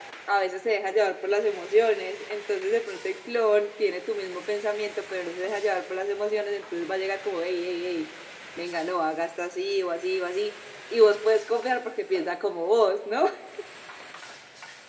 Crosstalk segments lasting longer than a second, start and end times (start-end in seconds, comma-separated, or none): none